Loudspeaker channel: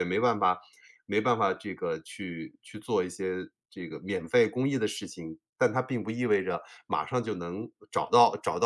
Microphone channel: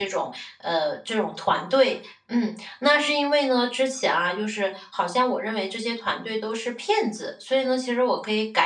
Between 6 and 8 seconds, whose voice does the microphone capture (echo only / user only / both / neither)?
user only